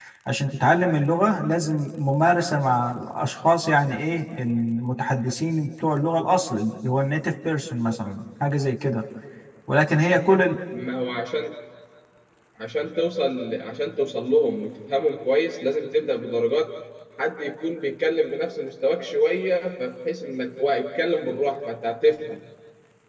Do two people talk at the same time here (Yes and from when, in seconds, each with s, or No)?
No